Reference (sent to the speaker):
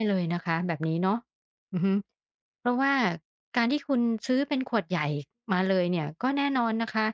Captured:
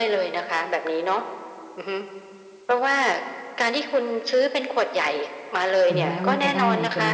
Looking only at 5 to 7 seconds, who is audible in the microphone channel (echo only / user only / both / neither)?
both